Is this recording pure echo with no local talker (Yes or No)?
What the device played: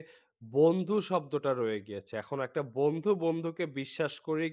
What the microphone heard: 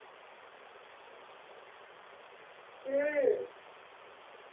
No